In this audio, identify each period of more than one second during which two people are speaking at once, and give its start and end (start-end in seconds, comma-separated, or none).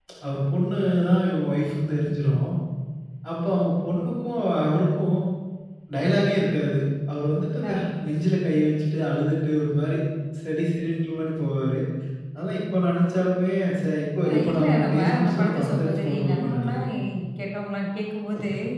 14.3-16.9